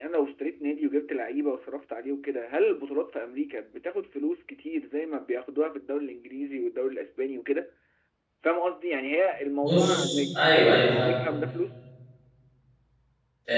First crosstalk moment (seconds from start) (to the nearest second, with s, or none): 10 s